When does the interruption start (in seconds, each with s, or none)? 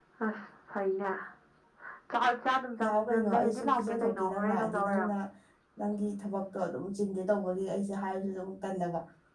2.8 s